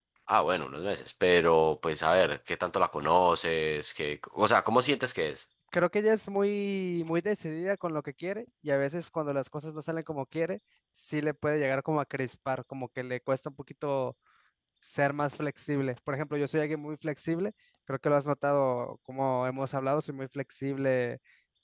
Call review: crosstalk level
none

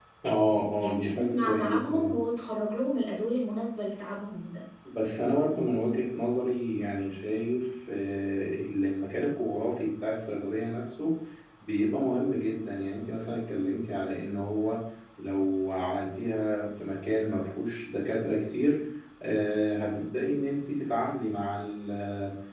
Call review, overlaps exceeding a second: present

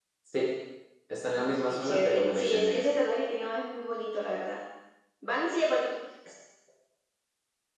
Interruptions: present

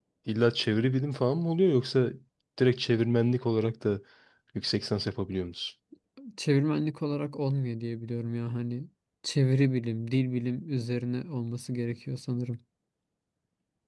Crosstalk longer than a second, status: none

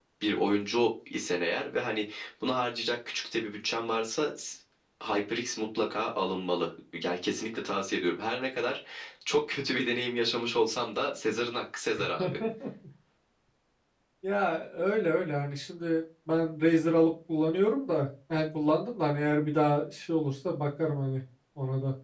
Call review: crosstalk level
none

